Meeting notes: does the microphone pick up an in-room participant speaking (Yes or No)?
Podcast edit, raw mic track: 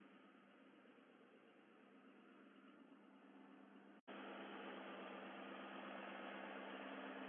No